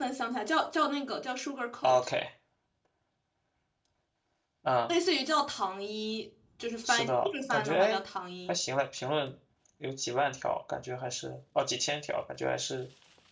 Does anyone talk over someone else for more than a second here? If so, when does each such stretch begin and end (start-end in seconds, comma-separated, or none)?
6.8-8.1